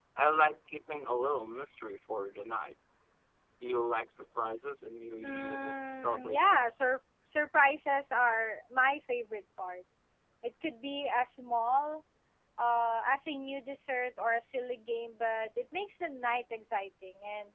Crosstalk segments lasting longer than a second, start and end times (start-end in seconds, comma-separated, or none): 5.2-6.8